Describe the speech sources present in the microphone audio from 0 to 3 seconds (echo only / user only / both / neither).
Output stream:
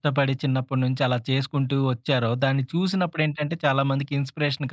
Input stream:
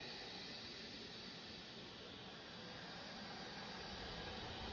neither